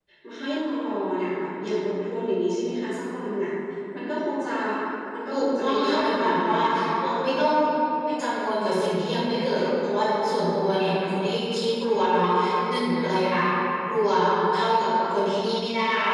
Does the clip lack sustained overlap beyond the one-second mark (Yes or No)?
No